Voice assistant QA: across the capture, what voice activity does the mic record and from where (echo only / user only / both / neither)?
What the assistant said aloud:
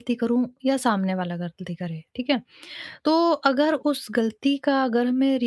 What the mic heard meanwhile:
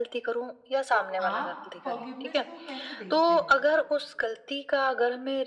both